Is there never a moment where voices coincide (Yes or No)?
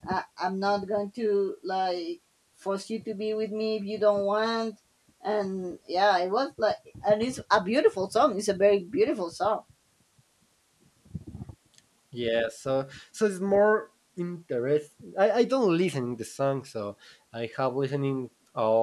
Yes